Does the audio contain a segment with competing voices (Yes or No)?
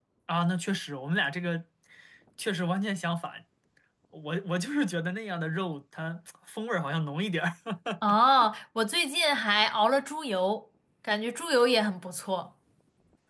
No